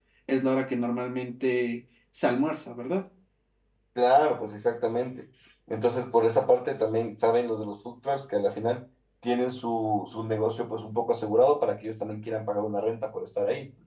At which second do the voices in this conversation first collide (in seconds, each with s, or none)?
none